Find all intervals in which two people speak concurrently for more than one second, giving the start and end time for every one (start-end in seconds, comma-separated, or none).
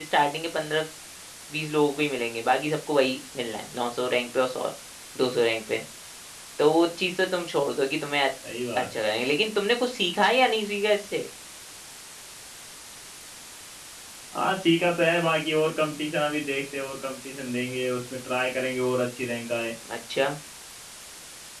none